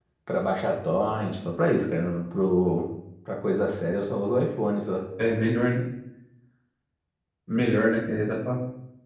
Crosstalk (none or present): none